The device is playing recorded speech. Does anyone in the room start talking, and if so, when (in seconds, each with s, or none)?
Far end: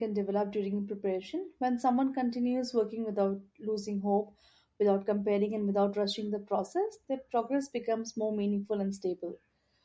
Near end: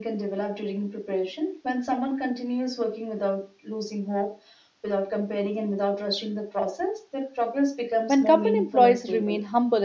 8.1 s